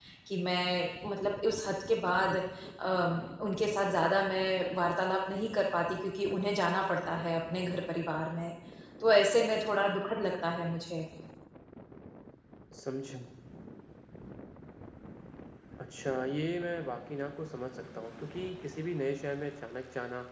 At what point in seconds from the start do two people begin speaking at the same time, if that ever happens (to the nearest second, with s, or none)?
none